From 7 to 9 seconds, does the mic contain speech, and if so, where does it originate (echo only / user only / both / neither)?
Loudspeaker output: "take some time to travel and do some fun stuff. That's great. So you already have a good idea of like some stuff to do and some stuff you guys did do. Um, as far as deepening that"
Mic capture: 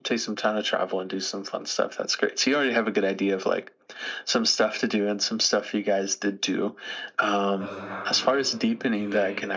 both